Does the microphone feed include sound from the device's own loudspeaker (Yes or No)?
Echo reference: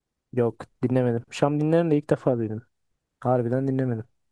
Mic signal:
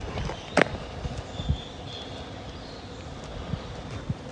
No